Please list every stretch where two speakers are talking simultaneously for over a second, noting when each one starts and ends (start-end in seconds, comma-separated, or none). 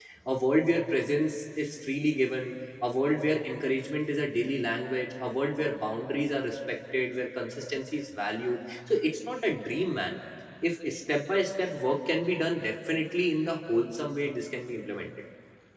none